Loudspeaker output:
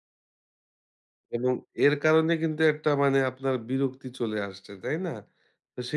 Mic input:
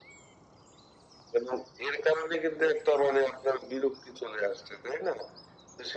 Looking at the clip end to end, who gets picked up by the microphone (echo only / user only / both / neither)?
echo only